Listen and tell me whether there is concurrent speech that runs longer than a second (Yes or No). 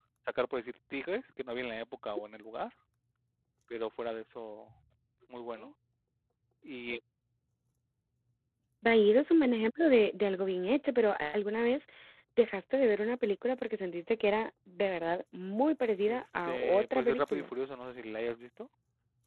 Yes